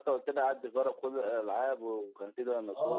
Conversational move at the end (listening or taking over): taking over